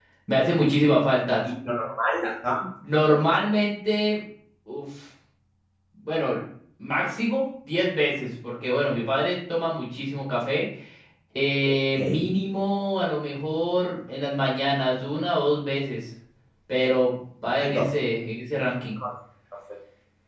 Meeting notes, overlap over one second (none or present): none